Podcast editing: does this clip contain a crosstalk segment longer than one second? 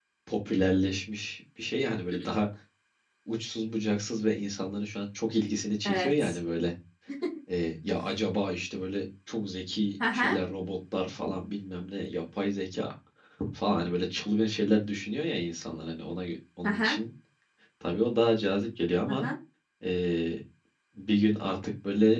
No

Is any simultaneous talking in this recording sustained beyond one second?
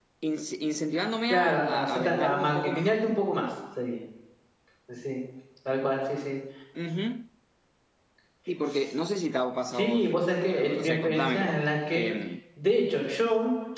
Yes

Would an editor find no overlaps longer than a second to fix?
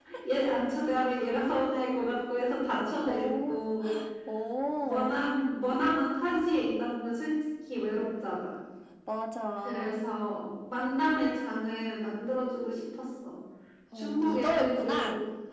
No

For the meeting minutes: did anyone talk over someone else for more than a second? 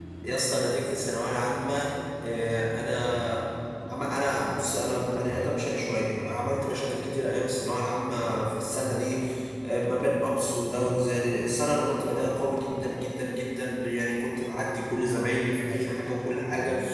No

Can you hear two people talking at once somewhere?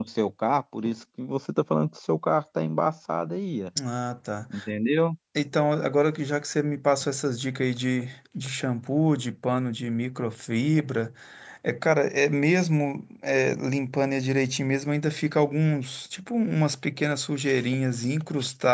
No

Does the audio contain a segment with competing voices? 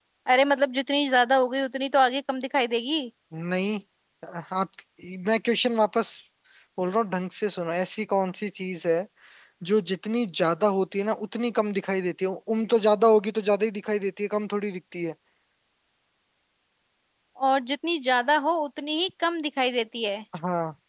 No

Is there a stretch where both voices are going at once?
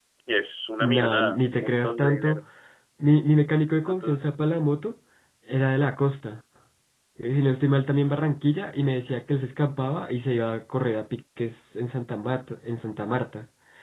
Yes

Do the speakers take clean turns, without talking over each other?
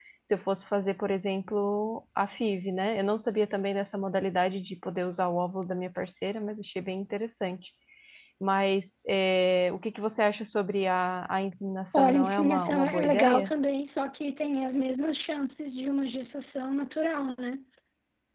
No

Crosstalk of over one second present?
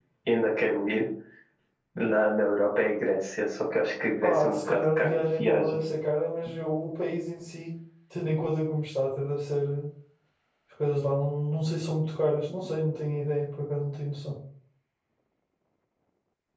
Yes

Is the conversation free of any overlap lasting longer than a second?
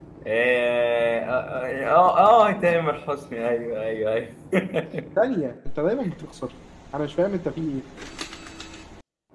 Yes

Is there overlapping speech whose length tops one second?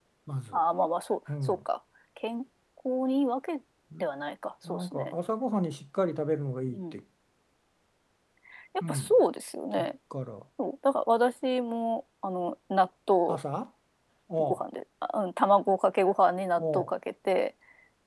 No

